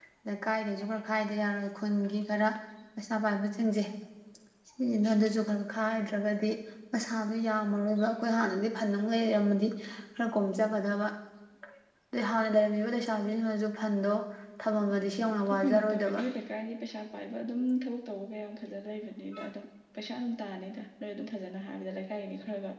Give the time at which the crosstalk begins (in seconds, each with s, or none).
14.9 s